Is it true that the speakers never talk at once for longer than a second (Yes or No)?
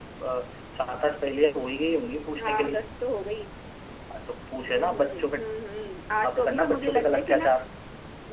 No